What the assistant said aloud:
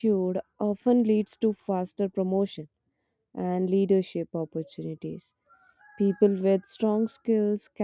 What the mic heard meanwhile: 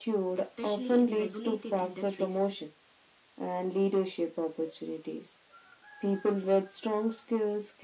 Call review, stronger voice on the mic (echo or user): echo